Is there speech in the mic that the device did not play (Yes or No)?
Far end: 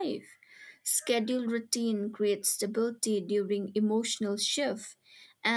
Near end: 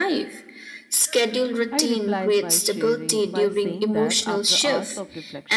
Yes